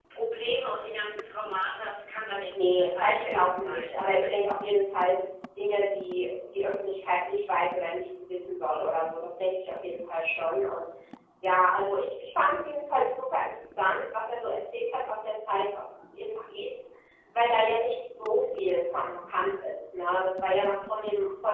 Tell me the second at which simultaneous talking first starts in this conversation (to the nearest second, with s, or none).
3 s